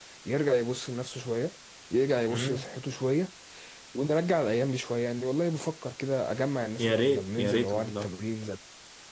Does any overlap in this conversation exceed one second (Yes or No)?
Yes